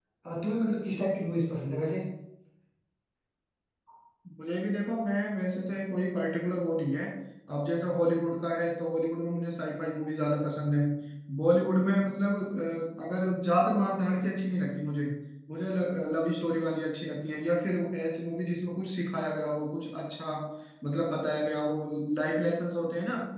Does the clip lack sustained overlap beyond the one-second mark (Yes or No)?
Yes